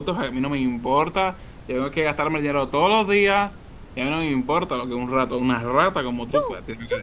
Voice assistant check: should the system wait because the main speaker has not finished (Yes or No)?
No